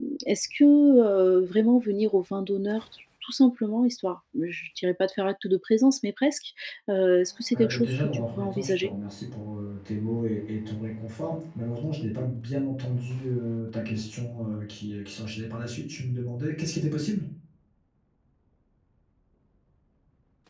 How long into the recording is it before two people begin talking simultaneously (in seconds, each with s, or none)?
7.5 s